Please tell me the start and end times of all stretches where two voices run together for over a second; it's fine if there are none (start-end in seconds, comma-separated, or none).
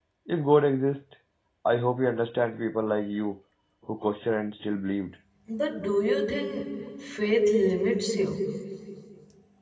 none